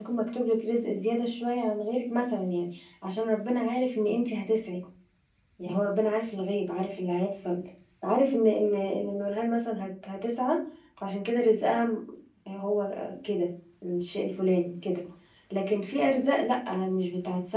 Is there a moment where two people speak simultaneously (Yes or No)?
No